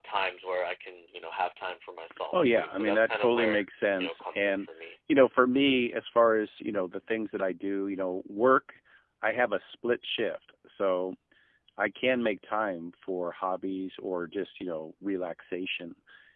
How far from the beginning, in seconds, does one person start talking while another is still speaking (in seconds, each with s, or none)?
2.1 s